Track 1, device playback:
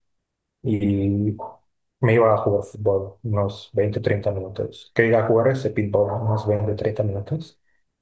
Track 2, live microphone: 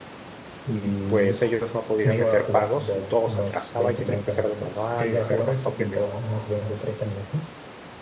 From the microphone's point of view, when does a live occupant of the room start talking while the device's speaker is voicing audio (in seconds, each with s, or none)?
1.1 s